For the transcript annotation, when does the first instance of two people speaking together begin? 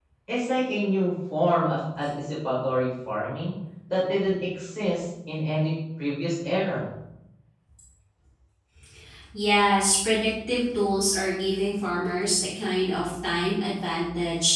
none

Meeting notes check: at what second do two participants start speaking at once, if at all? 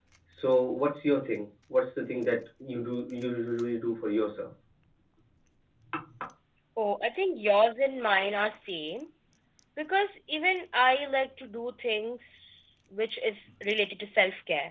none

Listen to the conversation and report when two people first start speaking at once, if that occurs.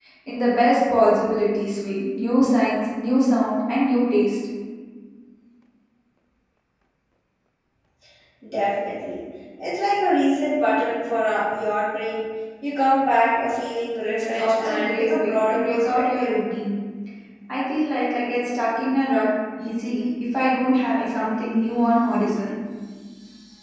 14.2 s

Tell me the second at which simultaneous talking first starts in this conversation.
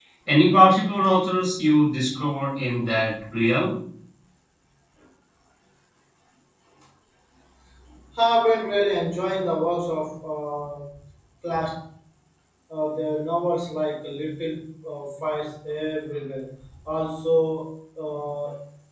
none

